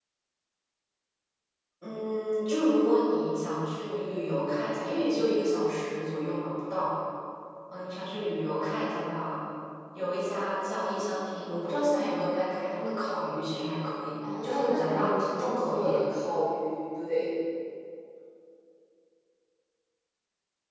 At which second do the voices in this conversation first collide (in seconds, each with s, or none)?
14.4 s